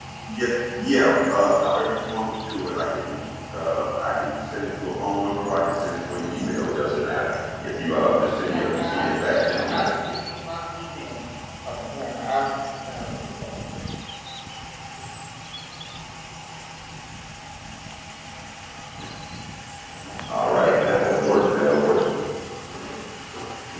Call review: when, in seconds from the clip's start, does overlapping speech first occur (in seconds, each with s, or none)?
8.5 s